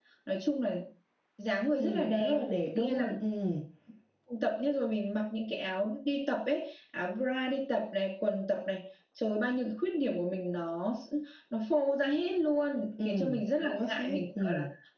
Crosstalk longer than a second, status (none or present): present